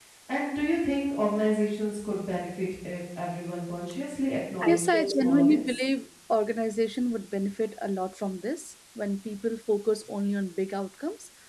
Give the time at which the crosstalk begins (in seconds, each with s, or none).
4.6 s